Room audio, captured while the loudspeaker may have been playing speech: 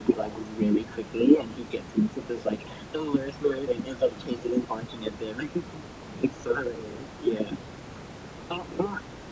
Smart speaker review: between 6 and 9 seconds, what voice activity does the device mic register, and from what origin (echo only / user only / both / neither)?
echo only